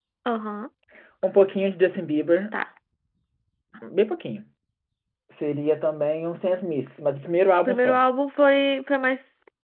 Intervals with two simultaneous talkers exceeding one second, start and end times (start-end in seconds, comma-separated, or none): none